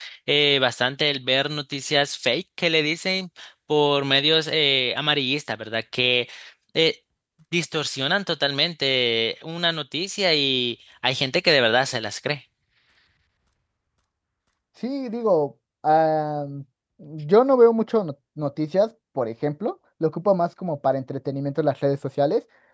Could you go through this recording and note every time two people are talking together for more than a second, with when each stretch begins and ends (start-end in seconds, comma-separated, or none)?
none